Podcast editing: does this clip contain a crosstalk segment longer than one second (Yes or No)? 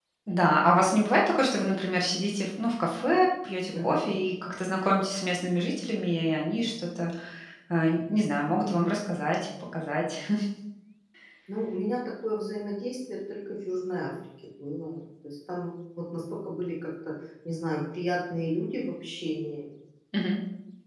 No